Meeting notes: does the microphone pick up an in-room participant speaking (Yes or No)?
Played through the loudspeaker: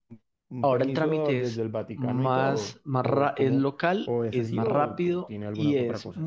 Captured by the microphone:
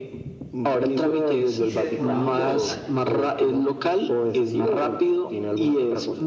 Yes